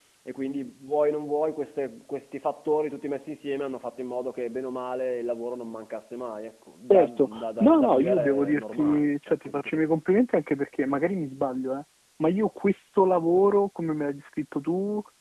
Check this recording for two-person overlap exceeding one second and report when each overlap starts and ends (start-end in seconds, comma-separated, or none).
6.8-9.8